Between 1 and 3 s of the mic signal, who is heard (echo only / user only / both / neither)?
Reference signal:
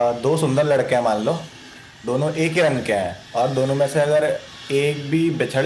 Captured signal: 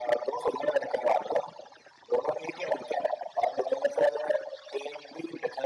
echo only